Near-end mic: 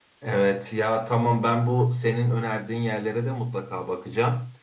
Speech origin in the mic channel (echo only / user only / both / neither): echo only